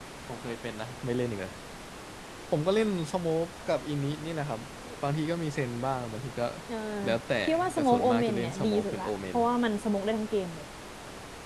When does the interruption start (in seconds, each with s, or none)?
7.7 s